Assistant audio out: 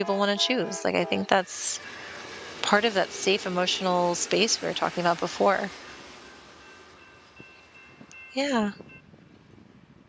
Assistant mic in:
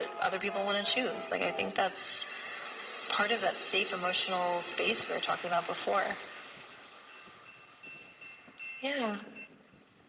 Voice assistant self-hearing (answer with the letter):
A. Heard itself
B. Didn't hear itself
A